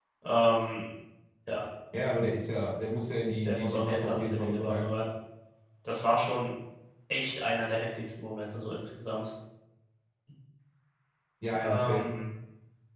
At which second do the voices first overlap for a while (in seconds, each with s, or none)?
3.4 s